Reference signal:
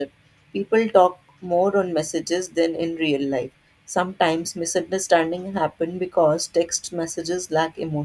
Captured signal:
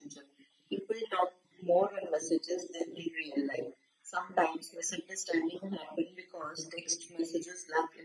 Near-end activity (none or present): none